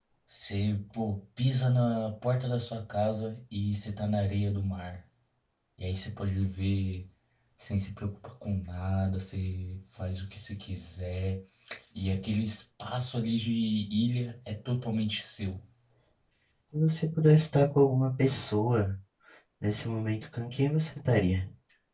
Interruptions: none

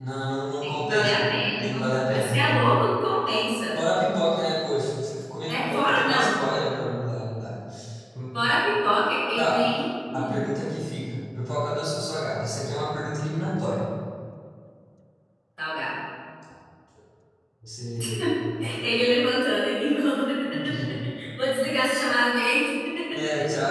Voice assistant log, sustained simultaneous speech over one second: present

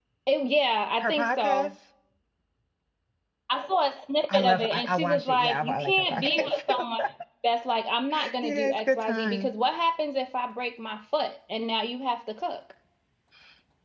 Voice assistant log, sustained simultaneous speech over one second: present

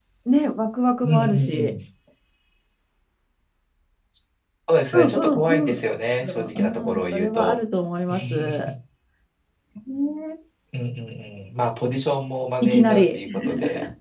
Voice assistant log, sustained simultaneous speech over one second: present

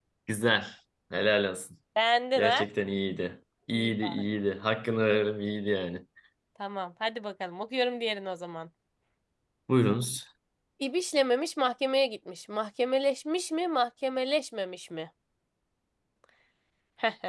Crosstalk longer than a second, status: none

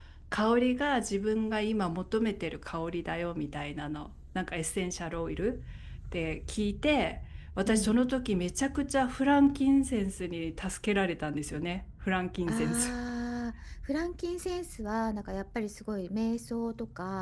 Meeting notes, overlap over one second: none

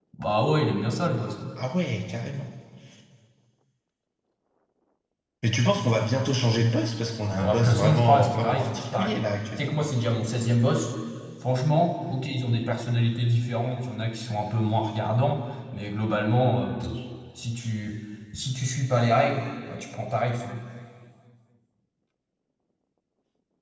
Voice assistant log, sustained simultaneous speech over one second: present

